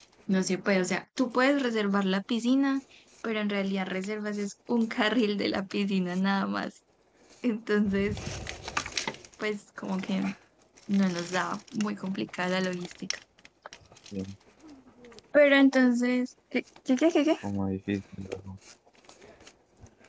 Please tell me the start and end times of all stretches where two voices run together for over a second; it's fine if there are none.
none

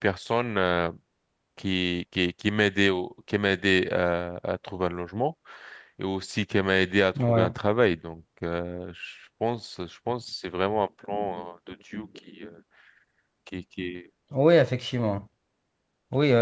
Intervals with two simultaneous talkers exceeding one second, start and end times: none

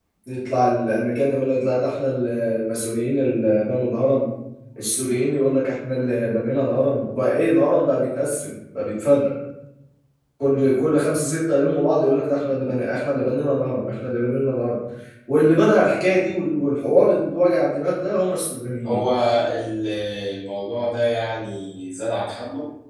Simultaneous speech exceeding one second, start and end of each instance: none

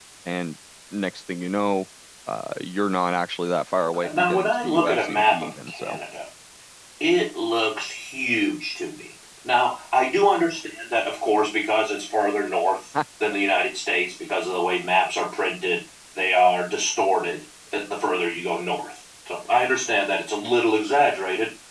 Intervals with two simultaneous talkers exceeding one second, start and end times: 3.8-6.0

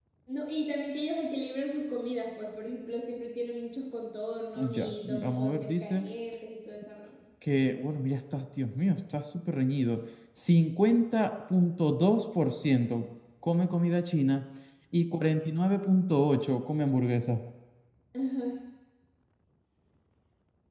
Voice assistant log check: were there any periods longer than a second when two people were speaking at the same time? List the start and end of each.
4.6-6.0

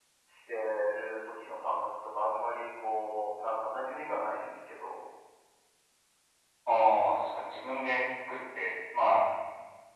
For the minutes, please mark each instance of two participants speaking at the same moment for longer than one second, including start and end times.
none

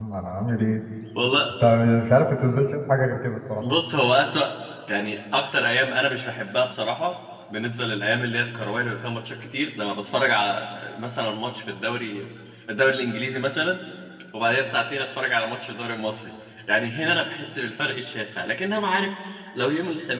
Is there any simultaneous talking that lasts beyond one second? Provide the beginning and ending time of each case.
none

